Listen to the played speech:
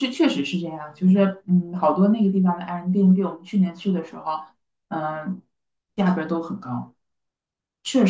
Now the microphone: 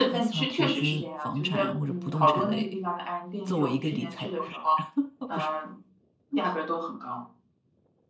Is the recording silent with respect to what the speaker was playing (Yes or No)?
No